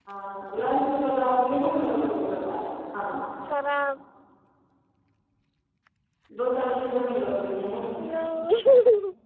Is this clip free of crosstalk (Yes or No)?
Yes